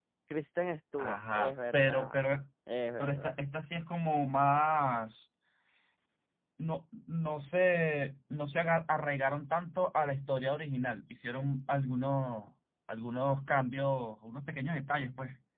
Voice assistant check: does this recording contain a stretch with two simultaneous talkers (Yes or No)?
Yes